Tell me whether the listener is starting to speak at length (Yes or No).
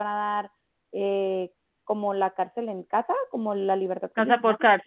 Yes